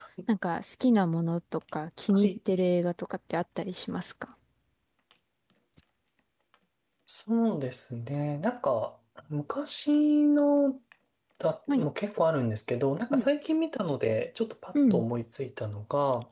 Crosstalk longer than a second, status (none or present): none